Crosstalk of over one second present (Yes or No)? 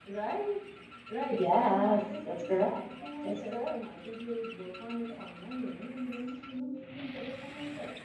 Yes